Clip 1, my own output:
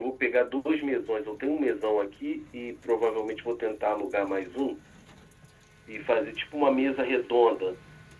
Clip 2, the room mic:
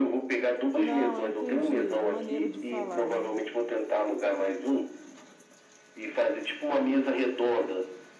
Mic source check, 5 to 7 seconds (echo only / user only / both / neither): echo only